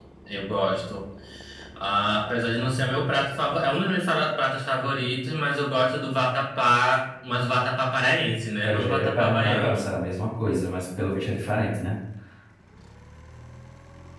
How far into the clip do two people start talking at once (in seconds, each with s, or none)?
8.6 s